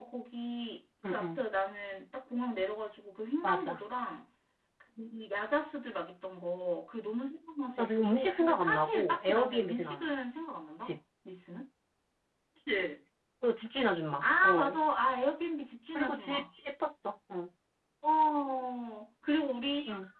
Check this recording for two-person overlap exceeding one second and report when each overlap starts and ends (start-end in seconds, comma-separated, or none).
7.8-10.1